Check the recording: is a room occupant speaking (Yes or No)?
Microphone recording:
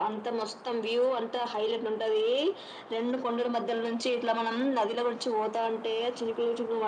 No